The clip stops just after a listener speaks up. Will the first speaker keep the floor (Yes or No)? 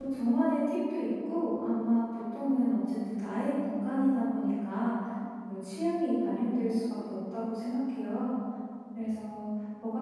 Yes